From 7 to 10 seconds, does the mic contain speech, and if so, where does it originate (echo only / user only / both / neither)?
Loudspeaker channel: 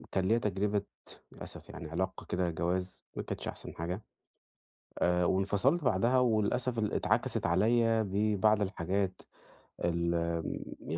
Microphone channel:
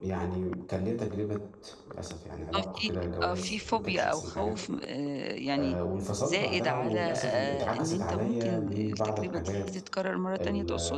both